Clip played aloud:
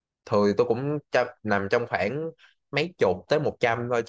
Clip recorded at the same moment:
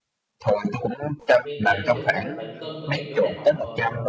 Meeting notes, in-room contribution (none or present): present